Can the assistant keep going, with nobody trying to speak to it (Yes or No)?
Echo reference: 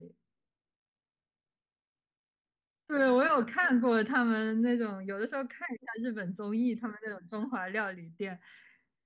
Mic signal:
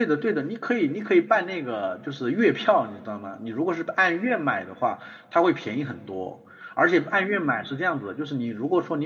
No